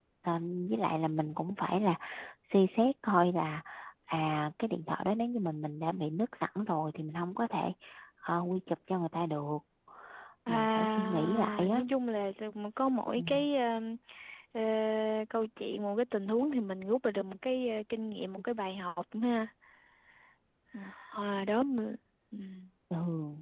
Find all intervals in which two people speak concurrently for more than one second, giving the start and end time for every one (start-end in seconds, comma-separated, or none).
10.5-11.8